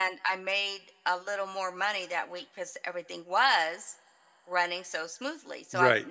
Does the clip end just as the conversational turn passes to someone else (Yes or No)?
No